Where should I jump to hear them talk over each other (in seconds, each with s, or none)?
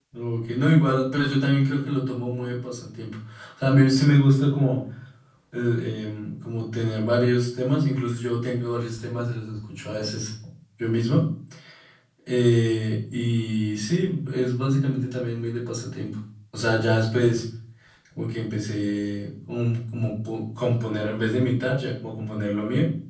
none